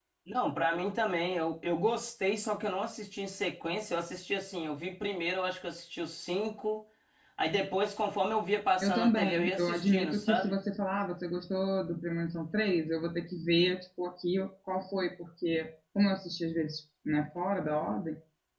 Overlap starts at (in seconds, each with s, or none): 8.8 s